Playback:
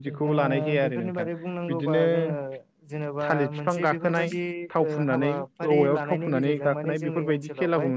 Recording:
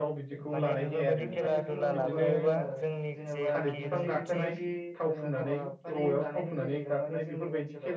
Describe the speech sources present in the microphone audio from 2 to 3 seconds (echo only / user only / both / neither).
both